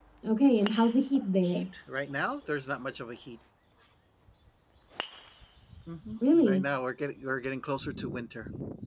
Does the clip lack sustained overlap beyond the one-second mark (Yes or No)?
Yes